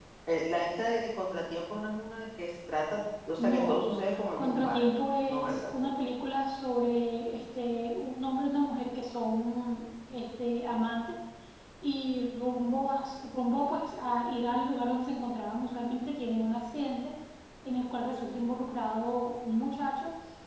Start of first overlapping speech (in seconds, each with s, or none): 3.4 s